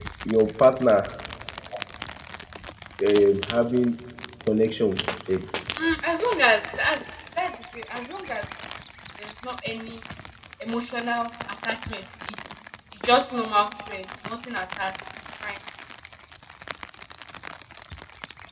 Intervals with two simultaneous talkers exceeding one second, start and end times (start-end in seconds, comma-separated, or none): none